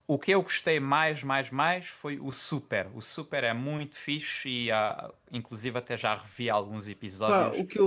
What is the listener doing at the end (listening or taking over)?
taking over